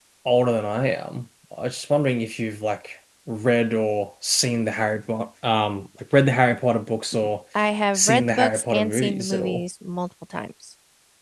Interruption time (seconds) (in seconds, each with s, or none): 8.0 s